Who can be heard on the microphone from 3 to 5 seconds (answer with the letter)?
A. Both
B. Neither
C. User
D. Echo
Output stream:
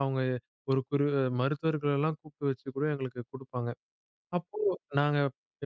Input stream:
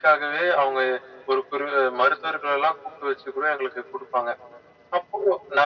D